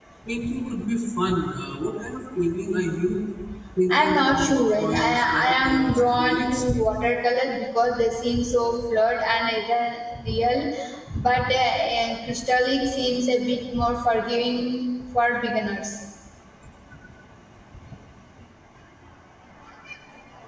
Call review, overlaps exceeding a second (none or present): present